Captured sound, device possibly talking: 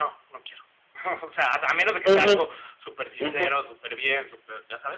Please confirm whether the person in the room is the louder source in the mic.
Yes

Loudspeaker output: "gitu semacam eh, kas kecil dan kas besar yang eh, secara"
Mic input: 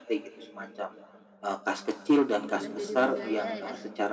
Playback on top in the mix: Yes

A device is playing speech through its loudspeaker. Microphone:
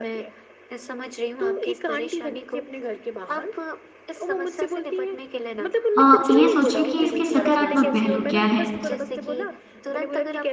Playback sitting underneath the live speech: Yes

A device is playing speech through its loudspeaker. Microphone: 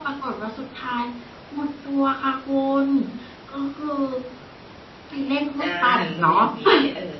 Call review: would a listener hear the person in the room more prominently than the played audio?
No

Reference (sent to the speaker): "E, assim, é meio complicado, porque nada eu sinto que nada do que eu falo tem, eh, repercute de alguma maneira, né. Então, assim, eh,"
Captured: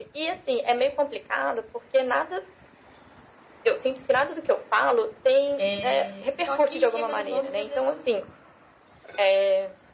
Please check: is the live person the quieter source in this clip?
Yes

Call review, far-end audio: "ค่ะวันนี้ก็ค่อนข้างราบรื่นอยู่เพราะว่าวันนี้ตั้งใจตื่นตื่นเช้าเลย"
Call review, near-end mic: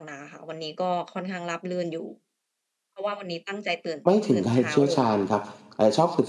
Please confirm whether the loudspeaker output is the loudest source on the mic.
No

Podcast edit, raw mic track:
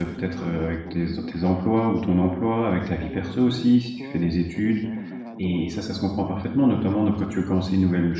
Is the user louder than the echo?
Yes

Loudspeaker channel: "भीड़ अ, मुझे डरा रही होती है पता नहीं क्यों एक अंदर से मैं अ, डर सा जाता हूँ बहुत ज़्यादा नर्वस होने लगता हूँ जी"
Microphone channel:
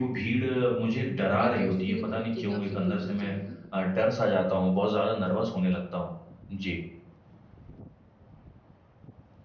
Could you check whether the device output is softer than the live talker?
No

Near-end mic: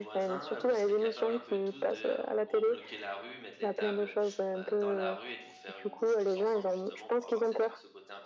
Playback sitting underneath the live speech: No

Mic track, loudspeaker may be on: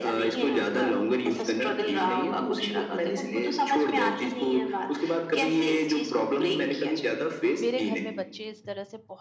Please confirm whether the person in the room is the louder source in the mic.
No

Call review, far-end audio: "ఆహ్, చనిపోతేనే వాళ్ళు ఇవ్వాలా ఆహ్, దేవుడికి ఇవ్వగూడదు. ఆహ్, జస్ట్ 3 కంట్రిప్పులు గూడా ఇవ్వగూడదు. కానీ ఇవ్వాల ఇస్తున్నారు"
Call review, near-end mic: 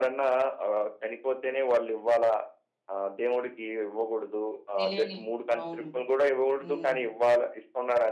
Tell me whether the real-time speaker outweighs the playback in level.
No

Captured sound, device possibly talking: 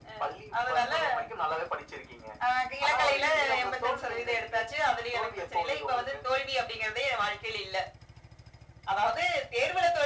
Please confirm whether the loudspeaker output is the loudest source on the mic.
Yes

